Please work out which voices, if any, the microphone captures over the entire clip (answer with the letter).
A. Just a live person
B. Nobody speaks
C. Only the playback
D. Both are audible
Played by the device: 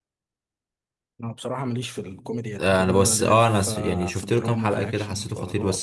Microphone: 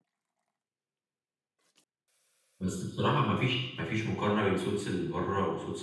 A